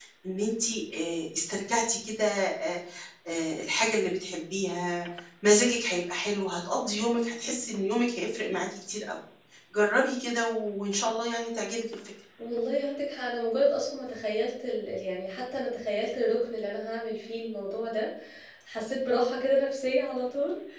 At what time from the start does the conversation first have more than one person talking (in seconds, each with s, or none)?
none